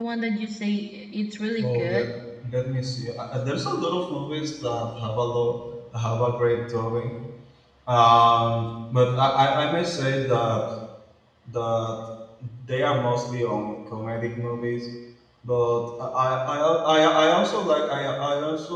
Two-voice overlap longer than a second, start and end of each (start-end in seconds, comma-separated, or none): none